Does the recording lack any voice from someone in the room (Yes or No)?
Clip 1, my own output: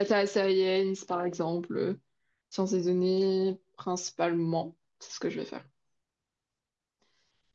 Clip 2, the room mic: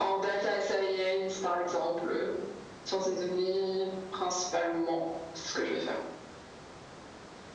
Yes